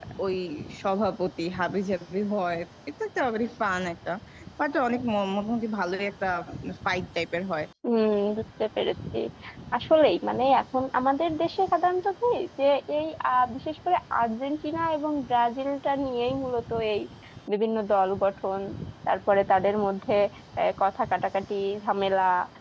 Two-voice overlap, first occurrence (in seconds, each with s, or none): none